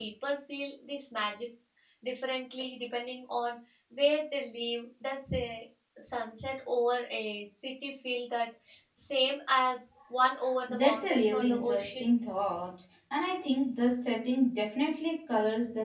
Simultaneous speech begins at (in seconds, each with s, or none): 10.7 s